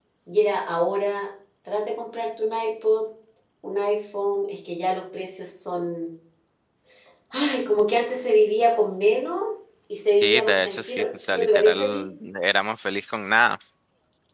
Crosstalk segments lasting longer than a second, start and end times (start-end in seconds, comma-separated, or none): 10.2-12.1